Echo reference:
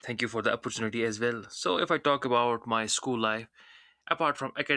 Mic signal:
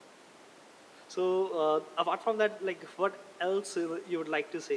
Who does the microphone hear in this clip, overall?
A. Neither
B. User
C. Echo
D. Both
B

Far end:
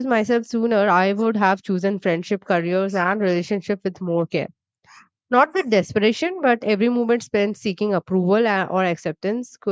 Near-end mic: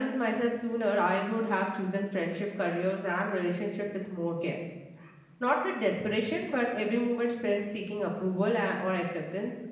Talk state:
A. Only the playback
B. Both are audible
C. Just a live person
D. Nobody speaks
A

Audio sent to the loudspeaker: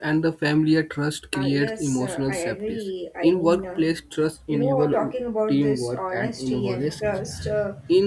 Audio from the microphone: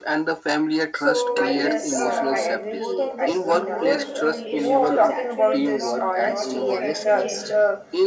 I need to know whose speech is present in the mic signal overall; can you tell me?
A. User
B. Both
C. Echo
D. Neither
B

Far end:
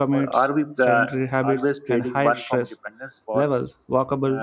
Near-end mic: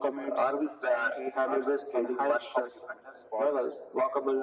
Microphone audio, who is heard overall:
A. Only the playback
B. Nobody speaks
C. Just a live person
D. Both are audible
A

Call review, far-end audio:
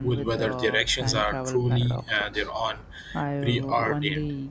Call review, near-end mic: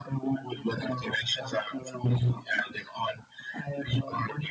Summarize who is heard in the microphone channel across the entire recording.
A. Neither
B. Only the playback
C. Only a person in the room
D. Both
B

